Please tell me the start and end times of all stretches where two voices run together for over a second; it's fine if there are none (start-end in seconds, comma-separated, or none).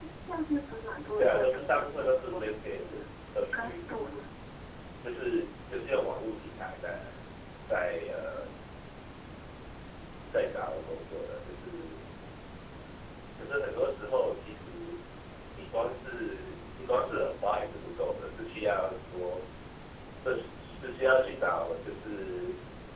1.2-3.0